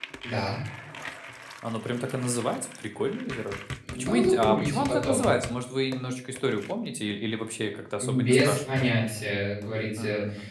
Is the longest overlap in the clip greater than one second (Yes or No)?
Yes